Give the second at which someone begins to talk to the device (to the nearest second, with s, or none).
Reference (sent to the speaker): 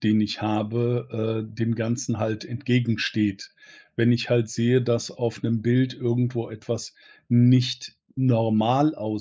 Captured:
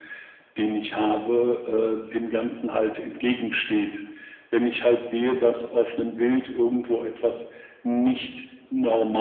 none